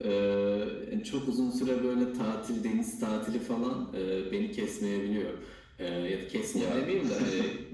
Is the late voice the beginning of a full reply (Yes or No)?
No